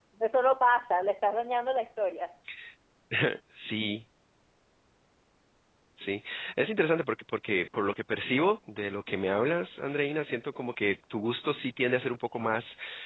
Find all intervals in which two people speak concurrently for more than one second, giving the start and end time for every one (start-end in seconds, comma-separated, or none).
none